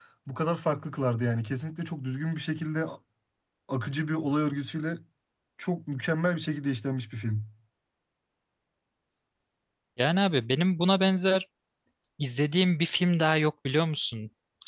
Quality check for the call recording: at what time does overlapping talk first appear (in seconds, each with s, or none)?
none